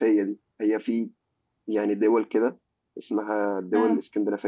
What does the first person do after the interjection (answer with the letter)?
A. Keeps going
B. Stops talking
A